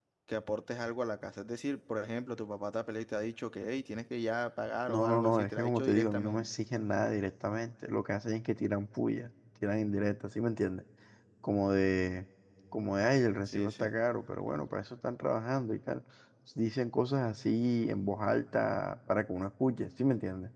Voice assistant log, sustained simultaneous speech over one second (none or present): present